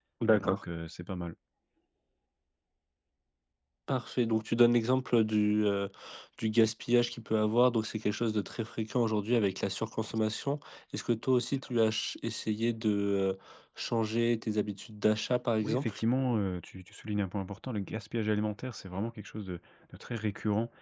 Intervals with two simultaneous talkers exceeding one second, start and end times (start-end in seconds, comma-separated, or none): none